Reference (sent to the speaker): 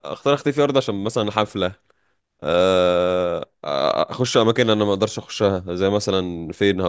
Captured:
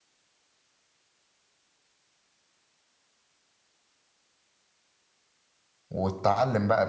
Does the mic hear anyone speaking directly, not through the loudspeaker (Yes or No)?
Yes